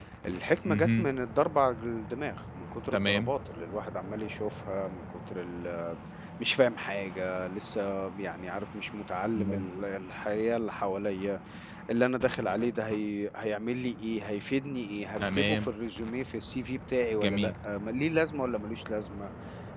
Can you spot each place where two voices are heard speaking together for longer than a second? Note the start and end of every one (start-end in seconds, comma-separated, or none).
none